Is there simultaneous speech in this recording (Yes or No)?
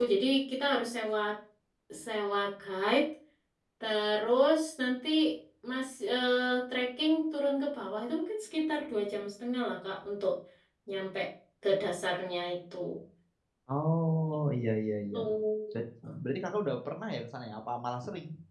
No